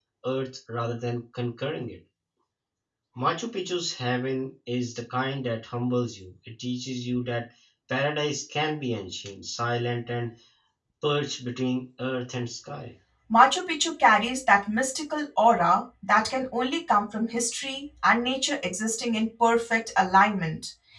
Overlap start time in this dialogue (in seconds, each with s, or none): none